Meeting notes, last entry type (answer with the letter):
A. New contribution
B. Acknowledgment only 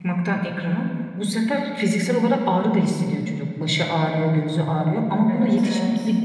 B